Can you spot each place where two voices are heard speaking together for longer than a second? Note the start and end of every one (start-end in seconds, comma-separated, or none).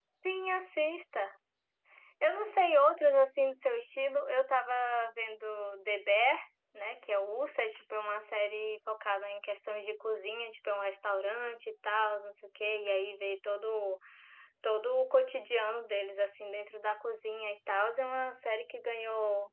none